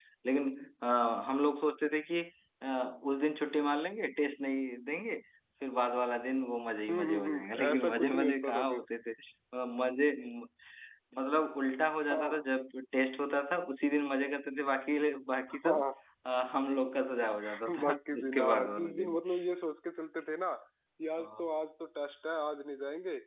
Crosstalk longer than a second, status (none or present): present